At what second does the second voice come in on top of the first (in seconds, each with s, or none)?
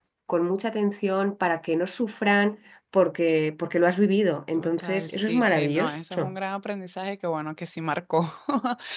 4.6 s